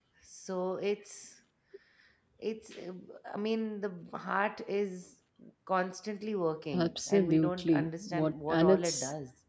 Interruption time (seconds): 6.7 s

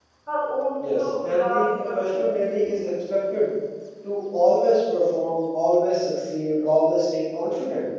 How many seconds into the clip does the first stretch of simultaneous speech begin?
1.0 s

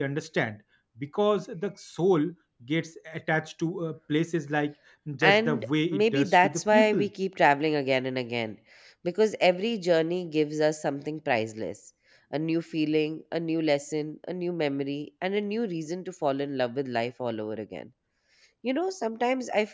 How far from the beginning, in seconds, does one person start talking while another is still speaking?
5.2 s

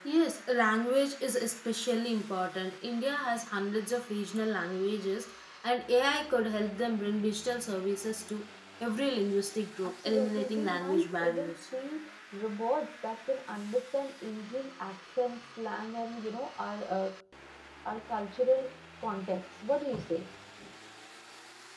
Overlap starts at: 10.1 s

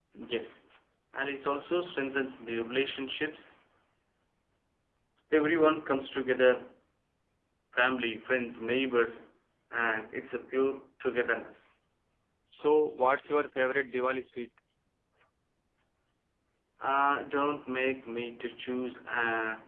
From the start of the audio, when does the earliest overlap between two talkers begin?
none

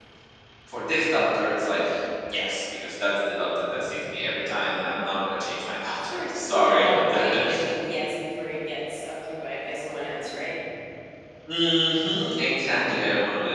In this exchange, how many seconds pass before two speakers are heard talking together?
6.1 s

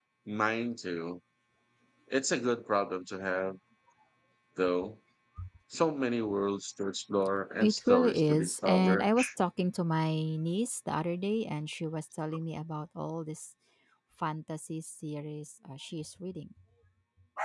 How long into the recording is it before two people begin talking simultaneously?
7.6 s

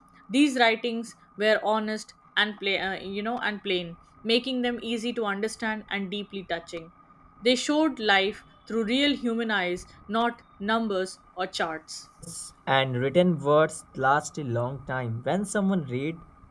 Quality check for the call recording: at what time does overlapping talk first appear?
none

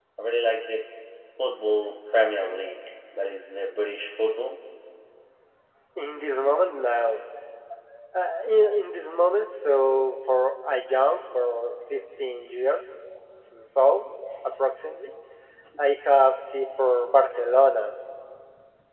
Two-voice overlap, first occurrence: none

